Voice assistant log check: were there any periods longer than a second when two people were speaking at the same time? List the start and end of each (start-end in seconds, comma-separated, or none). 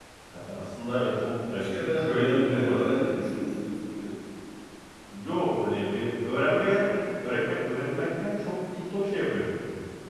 1.6-2.8